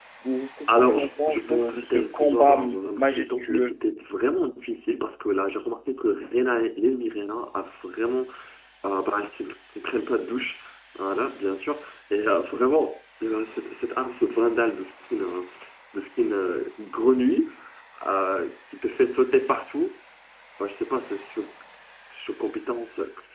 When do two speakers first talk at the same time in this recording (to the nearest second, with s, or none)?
1 s